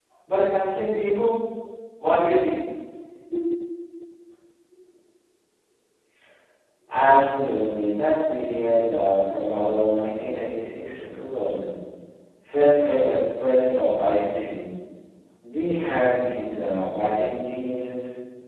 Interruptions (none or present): none